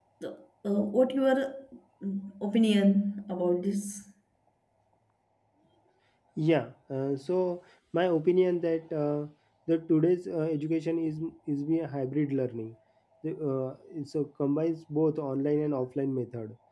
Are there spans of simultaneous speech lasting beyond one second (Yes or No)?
No